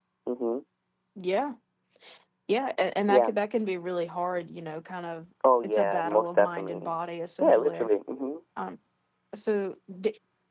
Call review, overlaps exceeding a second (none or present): present